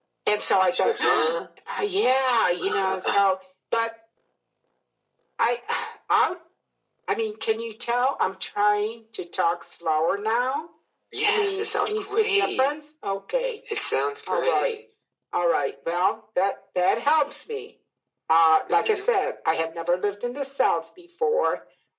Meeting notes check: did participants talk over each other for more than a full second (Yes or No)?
Yes